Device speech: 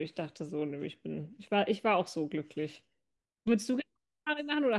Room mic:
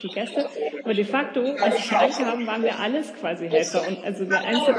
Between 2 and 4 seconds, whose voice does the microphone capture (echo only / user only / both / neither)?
both